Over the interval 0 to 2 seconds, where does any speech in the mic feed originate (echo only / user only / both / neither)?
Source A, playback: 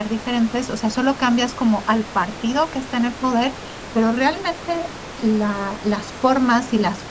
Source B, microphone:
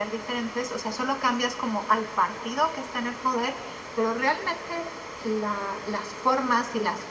echo only